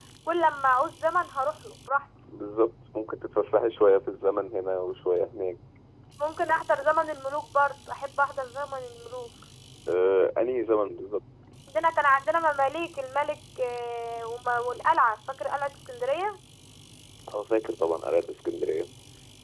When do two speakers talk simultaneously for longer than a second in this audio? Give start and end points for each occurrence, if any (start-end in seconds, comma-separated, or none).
none